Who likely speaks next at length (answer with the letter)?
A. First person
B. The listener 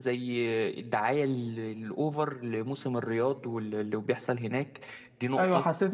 B